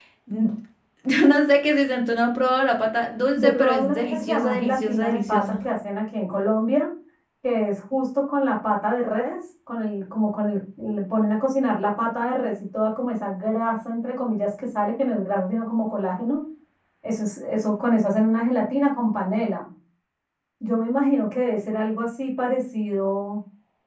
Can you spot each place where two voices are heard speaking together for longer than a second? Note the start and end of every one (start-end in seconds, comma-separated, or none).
3.3-5.6